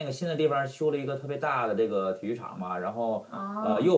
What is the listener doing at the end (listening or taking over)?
listening